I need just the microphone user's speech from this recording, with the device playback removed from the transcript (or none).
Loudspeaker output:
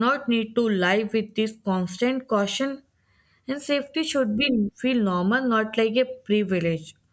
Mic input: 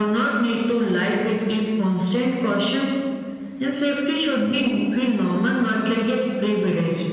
none